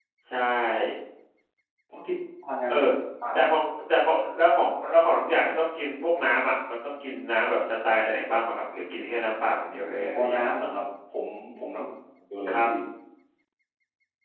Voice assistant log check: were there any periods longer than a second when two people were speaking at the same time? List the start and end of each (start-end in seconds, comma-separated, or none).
none